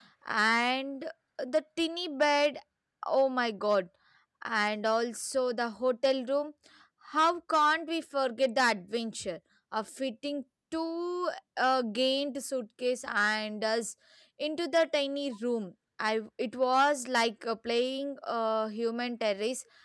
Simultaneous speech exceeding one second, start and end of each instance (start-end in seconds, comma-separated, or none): none